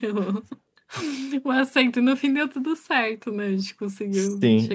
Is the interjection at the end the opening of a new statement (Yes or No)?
Yes